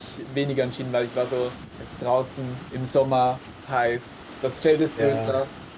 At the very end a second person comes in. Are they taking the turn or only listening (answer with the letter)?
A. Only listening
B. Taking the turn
A